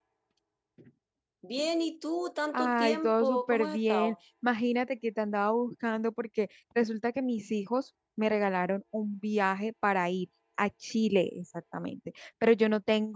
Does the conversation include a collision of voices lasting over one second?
Yes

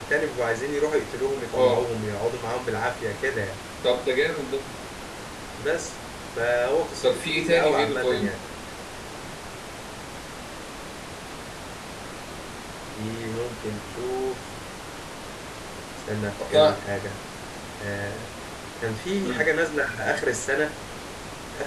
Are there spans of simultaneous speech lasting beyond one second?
Yes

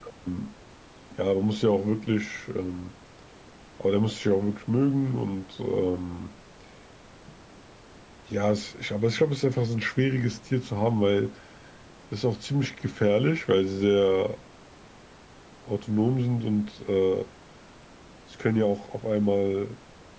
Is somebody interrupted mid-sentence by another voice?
No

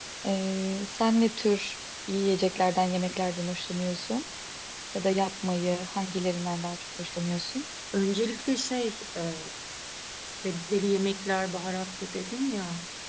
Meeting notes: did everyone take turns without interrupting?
Yes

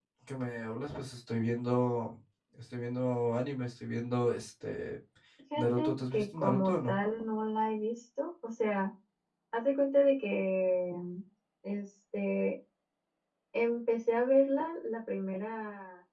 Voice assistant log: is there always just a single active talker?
No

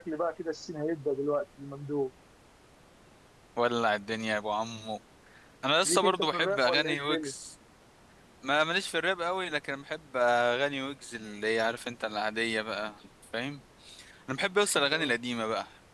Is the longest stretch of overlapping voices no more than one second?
No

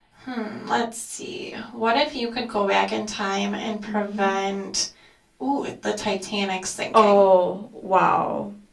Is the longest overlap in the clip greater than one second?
No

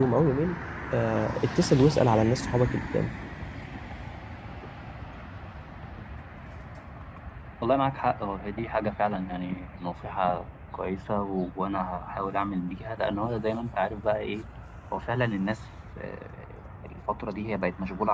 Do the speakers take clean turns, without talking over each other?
Yes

